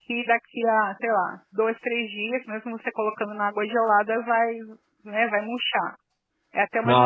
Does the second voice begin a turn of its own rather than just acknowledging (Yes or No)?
No